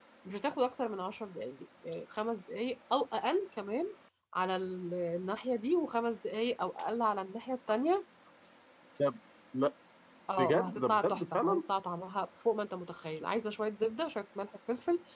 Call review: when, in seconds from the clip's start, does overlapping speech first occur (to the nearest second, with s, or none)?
10 s